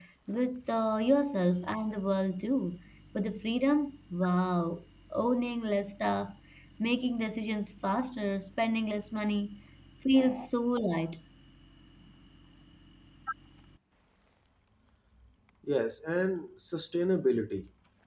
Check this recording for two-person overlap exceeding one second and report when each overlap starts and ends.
none

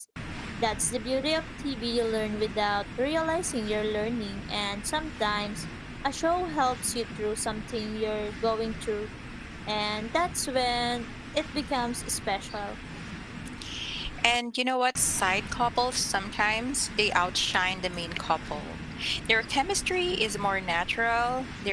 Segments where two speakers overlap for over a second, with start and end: none

